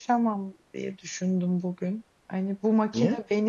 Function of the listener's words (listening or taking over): listening